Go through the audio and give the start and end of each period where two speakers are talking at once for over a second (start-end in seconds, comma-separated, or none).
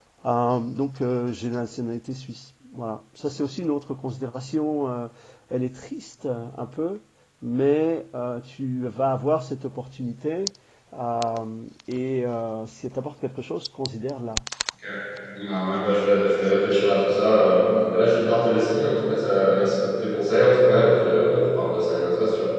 none